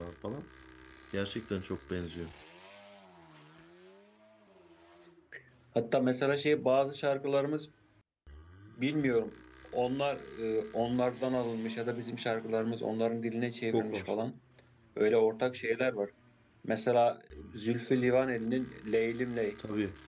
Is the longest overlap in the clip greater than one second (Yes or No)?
No